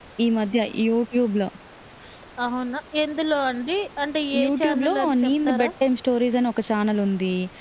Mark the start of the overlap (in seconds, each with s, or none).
4.3 s